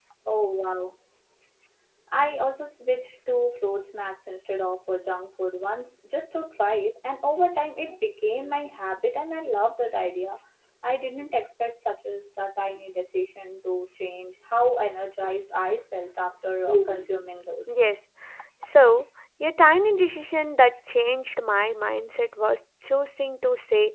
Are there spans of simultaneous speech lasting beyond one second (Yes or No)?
No